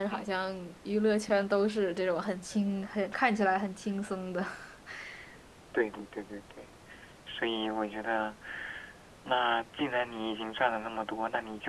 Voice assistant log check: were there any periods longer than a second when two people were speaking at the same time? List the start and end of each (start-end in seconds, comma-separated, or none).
none